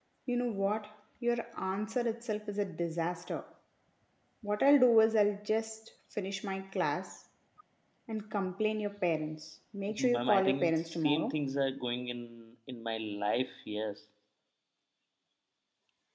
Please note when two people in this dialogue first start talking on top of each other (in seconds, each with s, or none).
9.9 s